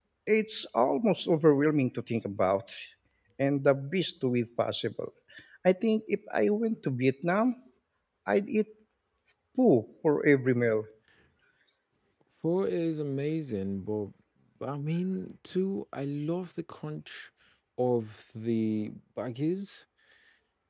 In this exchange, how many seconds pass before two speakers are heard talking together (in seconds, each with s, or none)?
none